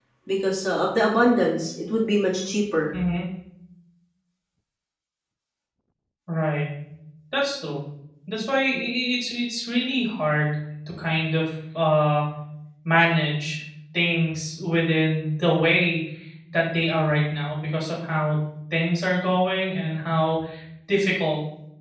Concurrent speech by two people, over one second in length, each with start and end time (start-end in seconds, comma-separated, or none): none